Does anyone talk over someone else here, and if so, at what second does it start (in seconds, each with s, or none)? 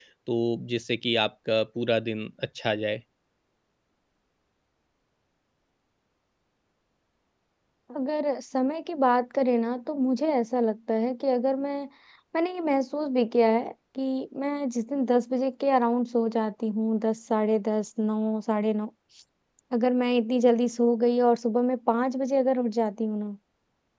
none